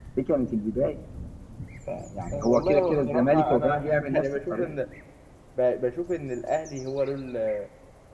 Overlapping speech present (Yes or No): Yes